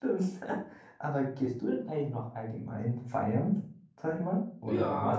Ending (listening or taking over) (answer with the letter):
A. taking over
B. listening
A